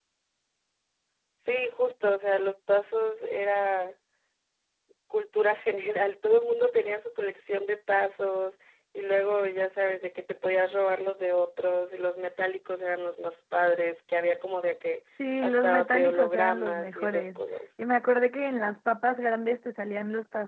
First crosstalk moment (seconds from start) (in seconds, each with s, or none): 15.2 s